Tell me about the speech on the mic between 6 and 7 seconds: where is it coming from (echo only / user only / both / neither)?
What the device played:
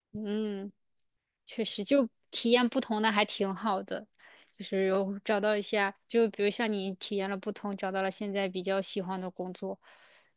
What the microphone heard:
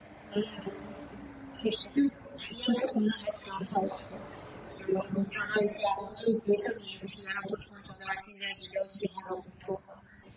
echo only